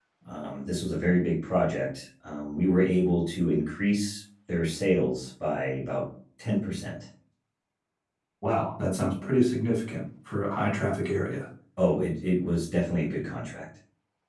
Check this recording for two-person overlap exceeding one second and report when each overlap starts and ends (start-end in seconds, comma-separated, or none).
none